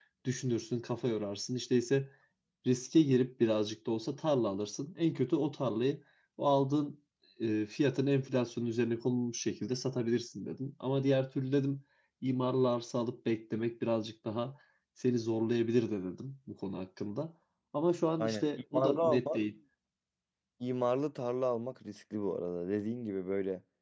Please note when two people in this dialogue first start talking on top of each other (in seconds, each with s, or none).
18.2 s